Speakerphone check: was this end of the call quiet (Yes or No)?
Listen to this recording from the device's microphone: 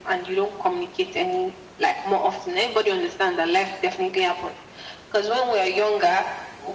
Yes